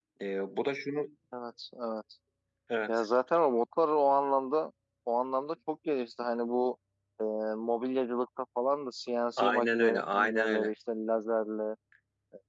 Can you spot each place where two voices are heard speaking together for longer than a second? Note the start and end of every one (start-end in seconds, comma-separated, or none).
9.4-10.7